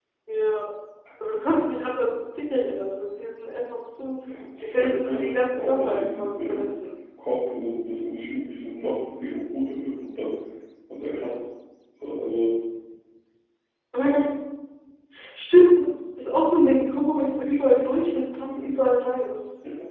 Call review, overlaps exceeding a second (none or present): present